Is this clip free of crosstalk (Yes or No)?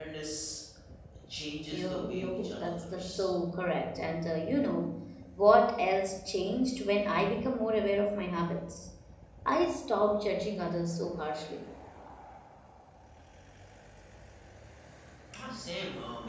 No